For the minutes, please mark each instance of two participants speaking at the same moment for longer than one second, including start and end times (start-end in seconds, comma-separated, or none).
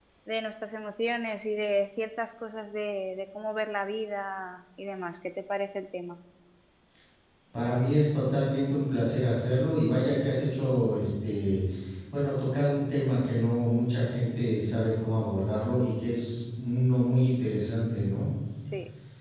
none